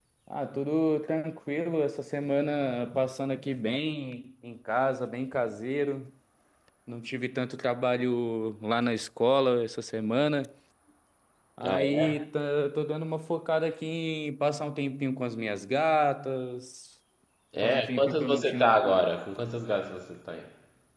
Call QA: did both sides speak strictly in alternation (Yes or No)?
No